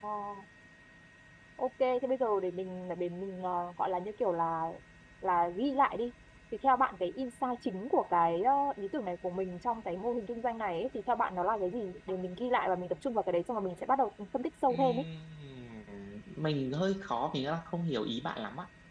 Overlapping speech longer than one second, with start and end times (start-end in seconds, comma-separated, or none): none